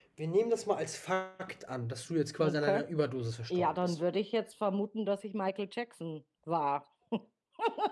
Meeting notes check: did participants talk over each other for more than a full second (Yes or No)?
No